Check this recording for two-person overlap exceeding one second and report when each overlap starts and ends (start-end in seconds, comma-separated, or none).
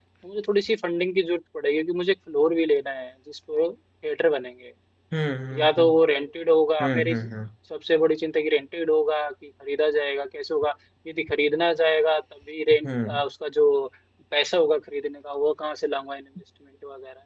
none